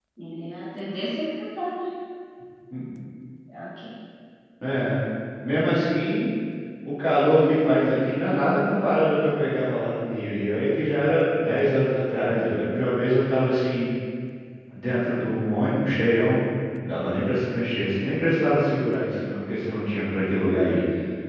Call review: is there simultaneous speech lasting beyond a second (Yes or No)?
No